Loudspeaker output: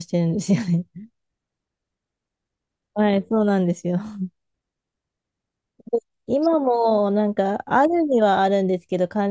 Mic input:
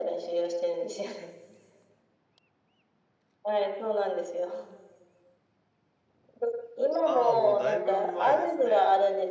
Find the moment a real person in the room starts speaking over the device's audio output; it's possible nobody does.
7.0 s

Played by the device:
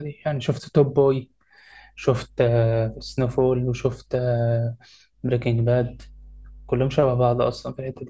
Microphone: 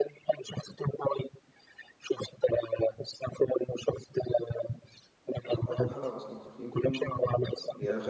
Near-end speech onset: 5.4 s

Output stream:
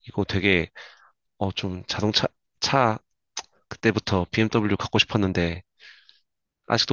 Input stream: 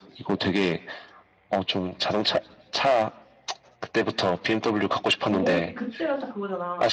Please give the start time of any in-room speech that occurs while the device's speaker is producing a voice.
5.3 s

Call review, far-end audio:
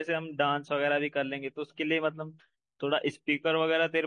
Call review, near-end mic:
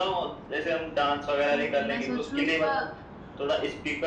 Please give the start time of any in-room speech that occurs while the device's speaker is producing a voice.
1.5 s

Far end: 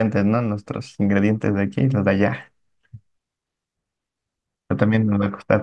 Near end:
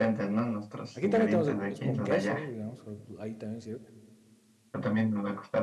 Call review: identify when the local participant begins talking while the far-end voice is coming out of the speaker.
0.9 s

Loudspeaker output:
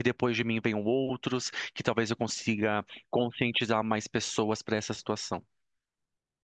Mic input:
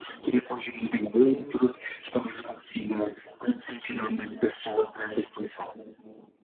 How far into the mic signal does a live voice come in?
1.1 s

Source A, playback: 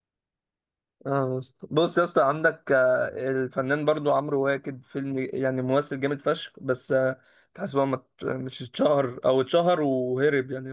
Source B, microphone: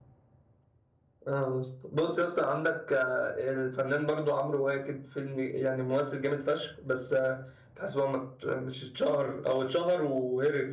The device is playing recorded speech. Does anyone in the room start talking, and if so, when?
none

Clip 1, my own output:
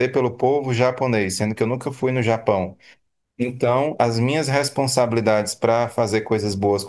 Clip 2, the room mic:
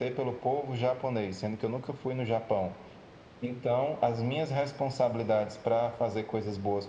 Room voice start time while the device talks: none

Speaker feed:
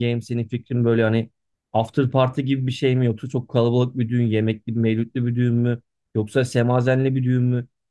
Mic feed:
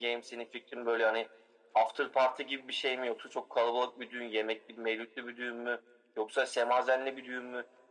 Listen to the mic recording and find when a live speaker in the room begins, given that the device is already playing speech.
none

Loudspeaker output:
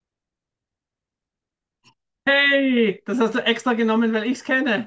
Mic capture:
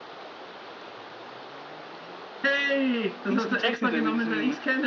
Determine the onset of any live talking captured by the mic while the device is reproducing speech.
3.3 s

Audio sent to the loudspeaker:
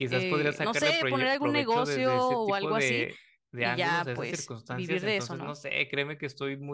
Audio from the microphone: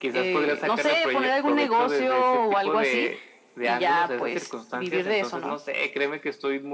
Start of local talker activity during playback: none

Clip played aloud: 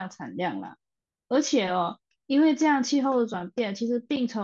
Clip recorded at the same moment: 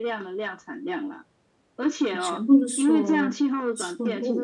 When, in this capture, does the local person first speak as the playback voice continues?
2.1 s

